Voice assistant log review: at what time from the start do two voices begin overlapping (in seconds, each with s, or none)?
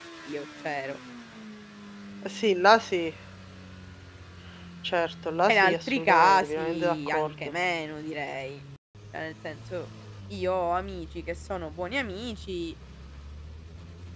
5.5 s